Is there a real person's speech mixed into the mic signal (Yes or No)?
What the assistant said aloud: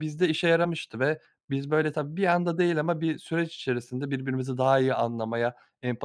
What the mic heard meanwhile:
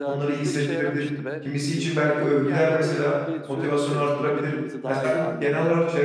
Yes